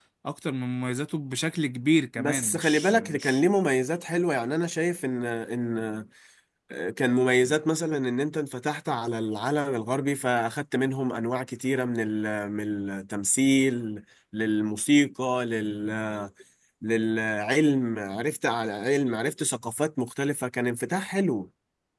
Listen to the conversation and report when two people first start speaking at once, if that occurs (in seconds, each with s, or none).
2.2 s